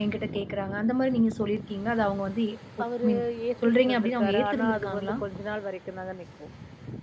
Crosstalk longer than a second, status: present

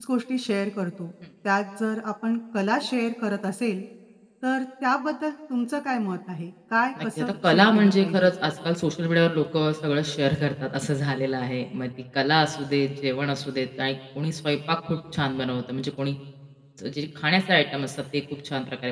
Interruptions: present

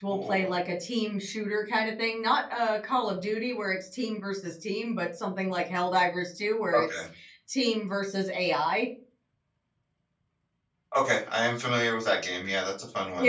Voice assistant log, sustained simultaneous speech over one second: none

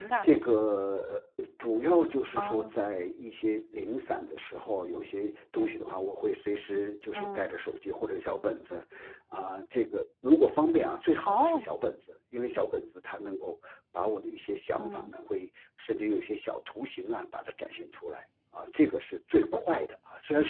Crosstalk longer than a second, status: none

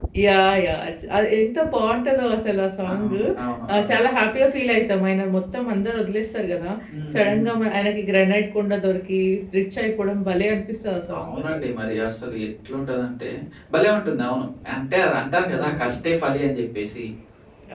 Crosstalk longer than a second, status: none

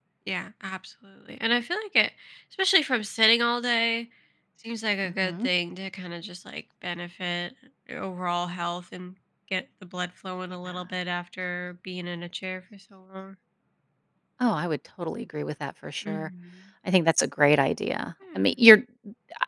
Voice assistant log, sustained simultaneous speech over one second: none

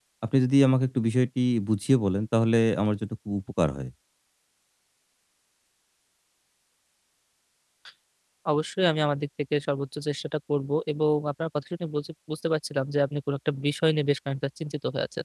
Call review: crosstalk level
none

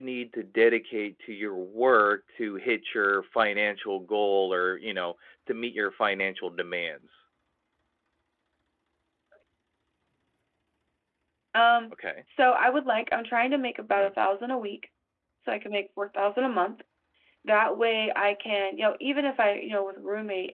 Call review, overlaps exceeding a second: none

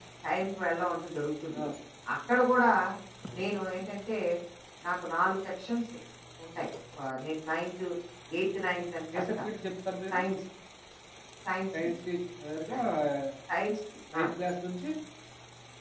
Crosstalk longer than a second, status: none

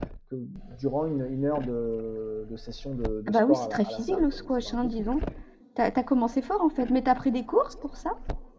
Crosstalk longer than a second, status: present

